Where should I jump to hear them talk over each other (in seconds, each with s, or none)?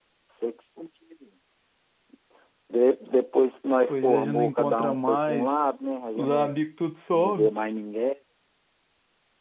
3.9 s